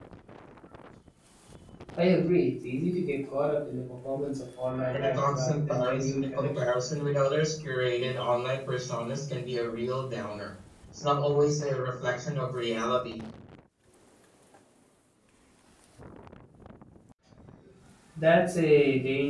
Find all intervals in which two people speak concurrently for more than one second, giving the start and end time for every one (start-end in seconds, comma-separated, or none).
4.9-6.6